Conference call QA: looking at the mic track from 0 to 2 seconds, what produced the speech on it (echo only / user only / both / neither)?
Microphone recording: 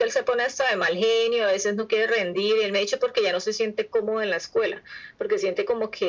echo only